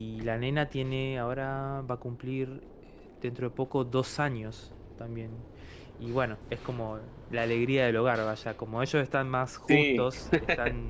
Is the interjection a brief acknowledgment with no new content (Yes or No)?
Yes